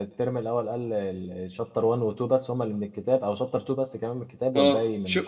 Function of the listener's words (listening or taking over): taking over